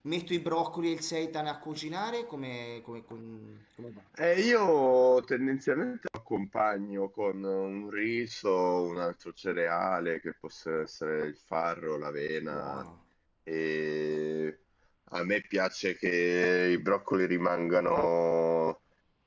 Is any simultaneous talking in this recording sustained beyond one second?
No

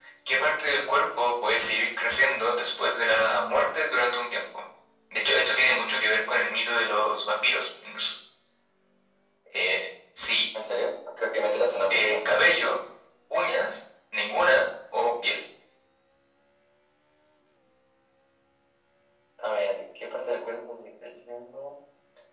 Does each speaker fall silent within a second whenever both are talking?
Yes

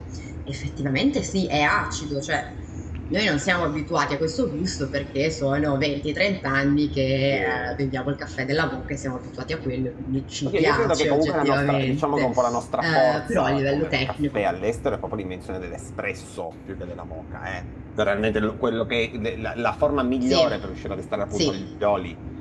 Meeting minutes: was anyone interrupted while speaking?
Yes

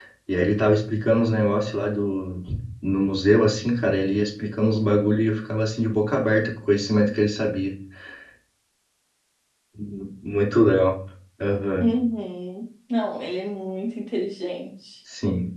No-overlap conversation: Yes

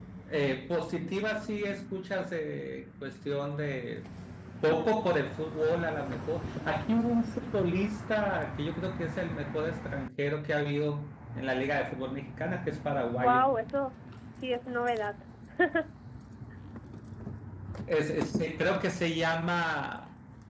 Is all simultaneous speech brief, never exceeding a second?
Yes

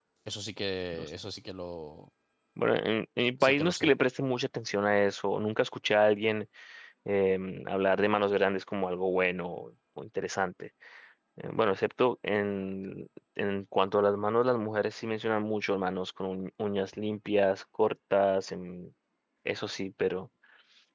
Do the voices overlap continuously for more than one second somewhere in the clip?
No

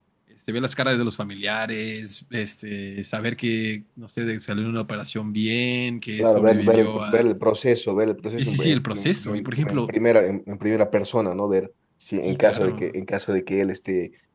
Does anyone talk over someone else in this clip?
Yes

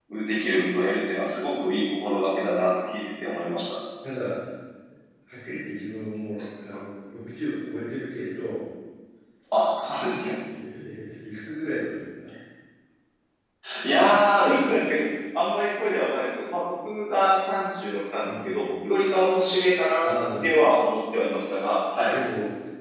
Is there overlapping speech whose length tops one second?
No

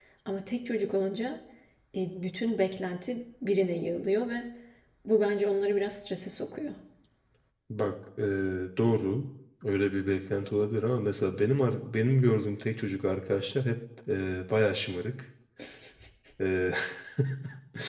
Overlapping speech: No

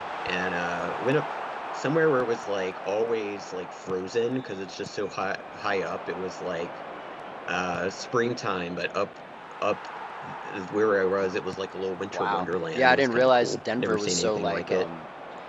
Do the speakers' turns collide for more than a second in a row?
Yes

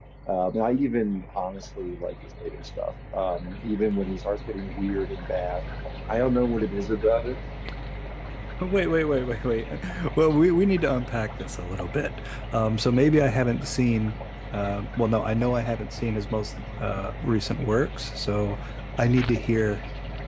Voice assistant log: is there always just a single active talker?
Yes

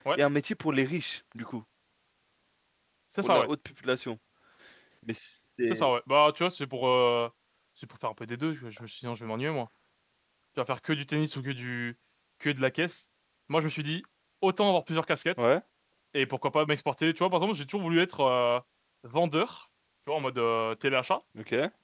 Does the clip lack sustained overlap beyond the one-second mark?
Yes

